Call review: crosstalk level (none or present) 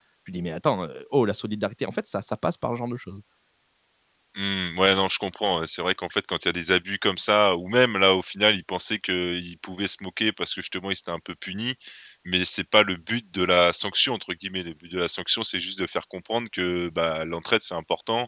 none